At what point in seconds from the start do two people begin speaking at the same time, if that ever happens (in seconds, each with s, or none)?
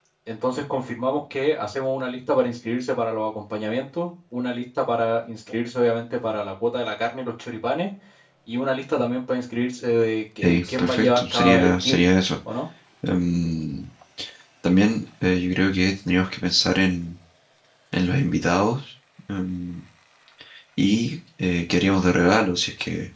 10.4 s